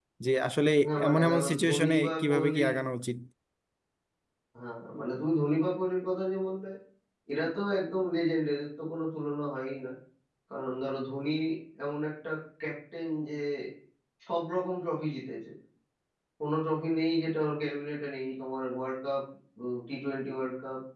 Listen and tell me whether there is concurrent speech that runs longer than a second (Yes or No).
Yes